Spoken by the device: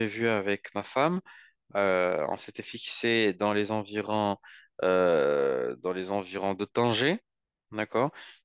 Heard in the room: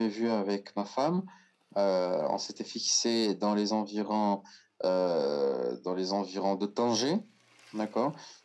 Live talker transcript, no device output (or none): none